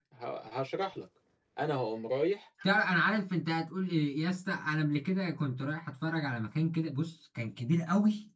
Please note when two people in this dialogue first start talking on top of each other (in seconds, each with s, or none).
none